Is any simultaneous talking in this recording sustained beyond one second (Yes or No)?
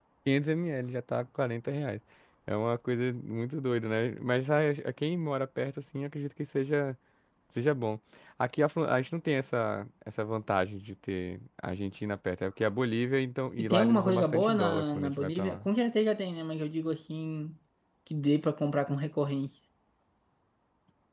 Yes